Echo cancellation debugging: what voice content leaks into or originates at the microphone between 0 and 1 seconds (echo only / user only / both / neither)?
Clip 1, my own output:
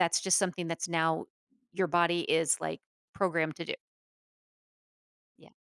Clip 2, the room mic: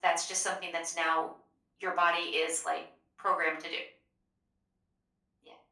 echo only